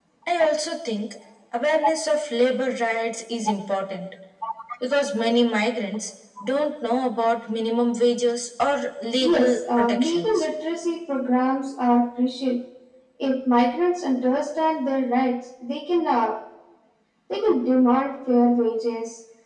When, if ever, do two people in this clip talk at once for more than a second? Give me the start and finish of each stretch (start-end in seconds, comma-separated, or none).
9.2-10.5